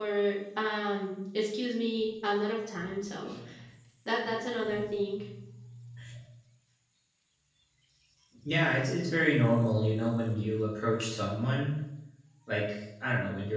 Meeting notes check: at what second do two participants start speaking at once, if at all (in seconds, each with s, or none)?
none